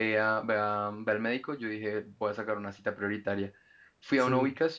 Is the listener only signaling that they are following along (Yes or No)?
Yes